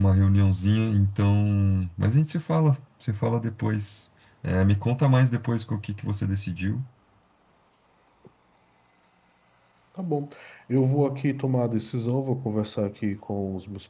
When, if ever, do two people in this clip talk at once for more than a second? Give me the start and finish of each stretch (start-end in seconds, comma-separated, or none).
none